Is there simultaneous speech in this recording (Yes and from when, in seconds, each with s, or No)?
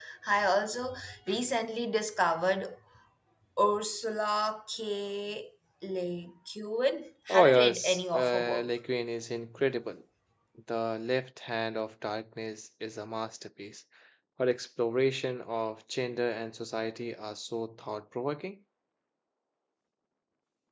Yes, from 7.3 s